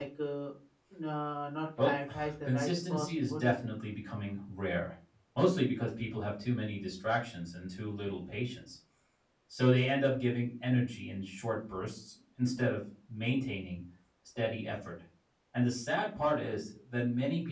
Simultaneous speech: Yes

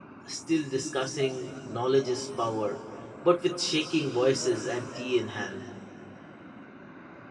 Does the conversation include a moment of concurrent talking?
No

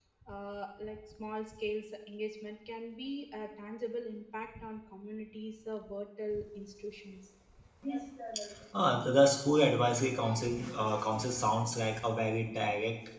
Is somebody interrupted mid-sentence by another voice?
No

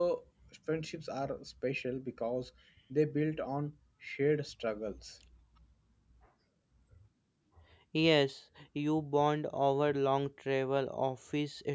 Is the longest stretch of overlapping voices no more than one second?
Yes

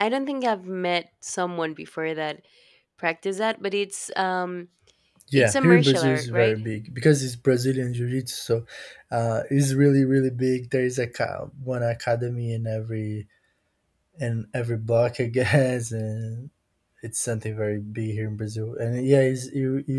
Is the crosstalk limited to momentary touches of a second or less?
No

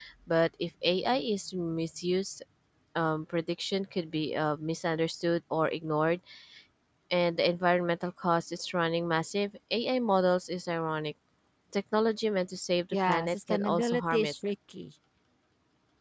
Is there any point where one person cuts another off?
Yes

